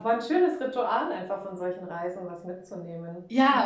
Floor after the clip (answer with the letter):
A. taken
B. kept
A